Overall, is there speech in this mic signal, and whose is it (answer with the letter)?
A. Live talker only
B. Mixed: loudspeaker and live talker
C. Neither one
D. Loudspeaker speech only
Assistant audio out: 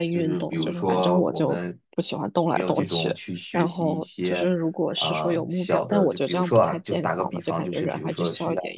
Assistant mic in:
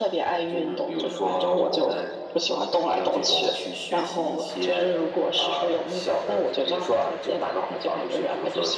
D